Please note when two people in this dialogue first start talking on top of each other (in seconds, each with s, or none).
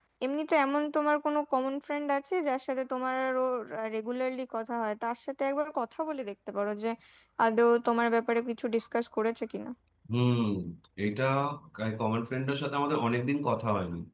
none